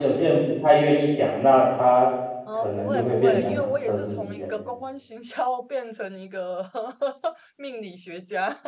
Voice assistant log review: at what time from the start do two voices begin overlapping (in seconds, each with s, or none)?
2.5 s